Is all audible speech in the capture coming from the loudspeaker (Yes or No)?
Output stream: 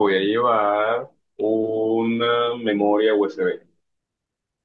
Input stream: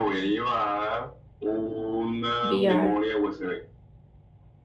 No